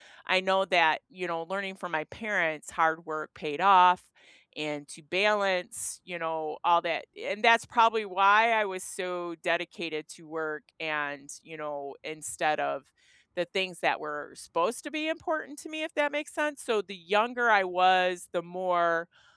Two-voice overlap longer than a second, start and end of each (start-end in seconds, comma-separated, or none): none